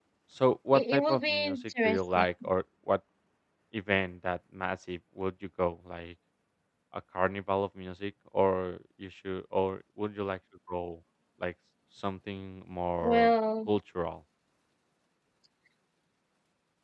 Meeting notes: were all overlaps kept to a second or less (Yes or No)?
No